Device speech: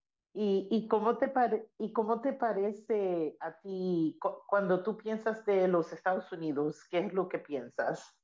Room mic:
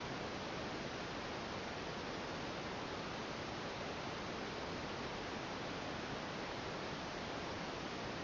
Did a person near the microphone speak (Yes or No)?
No